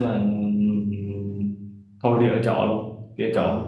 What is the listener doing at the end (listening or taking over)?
listening